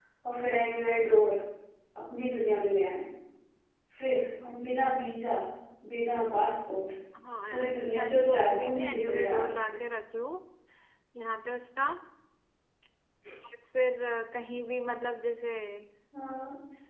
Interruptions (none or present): present